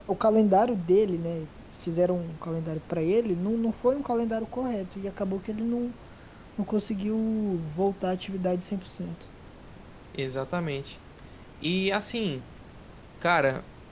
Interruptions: none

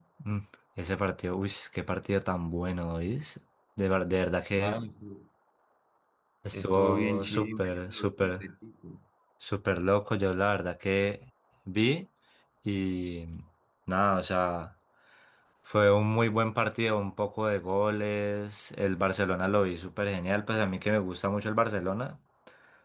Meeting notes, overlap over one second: present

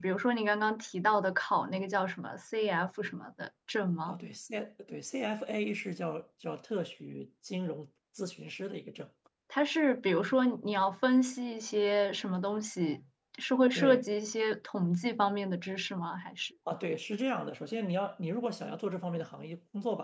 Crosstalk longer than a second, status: none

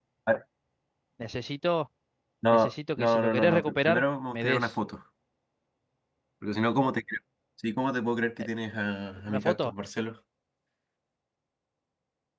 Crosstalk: present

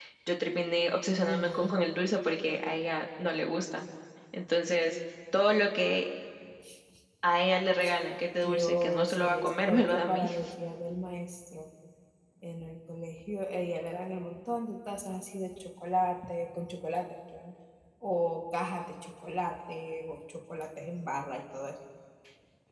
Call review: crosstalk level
present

